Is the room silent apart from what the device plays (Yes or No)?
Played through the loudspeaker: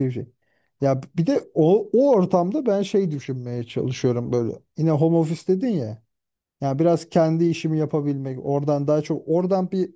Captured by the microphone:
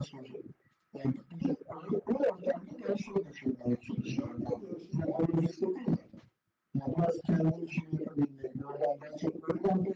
No